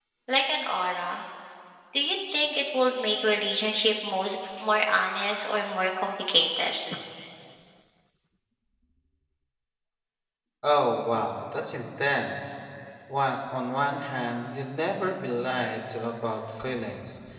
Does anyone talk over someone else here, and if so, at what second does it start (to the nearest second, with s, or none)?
none